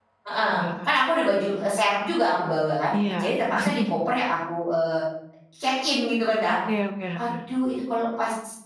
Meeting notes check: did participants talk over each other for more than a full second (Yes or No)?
No